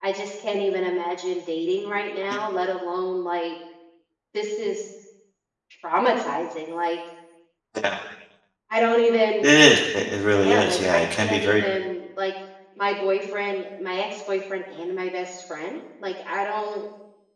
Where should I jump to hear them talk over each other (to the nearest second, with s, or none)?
10 s